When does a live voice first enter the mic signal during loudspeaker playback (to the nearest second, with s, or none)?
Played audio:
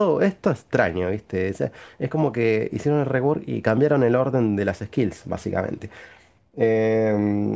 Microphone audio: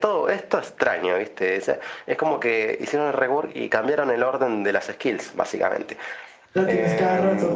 7 s